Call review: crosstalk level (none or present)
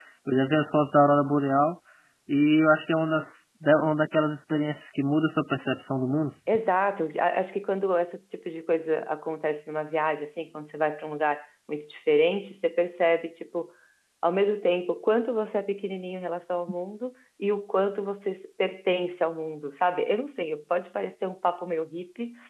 none